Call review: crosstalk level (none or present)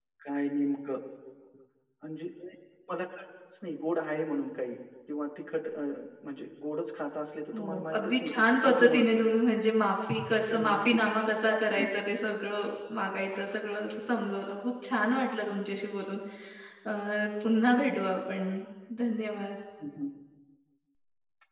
present